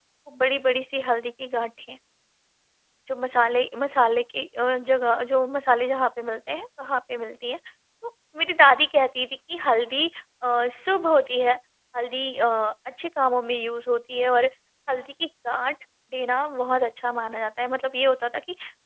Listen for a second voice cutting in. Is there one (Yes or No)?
No